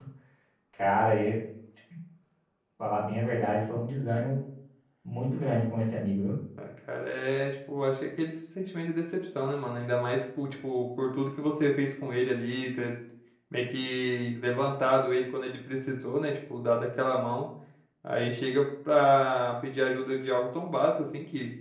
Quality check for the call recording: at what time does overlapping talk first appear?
none

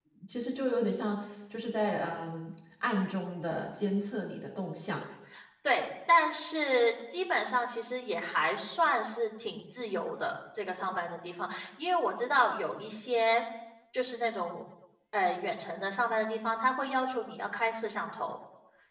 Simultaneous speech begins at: none

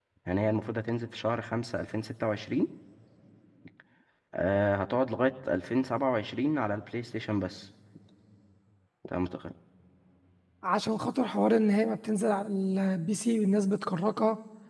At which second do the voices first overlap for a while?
none

